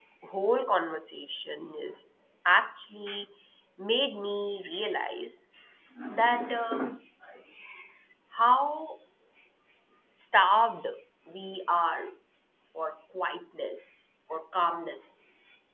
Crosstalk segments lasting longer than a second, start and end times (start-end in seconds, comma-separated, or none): none